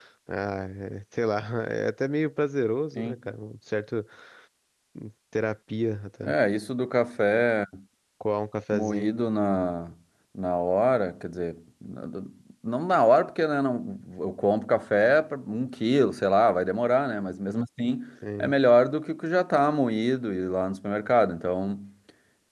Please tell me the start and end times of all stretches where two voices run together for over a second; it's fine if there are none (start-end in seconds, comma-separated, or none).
none